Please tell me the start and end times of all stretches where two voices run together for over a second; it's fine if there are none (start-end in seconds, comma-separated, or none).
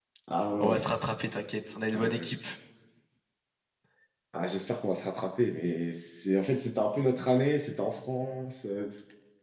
none